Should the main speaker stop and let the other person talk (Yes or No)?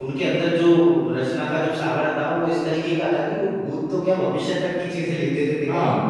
Yes